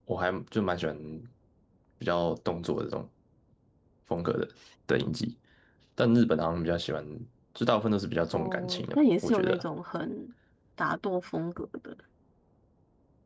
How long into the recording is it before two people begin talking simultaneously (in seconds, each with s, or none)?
8.3 s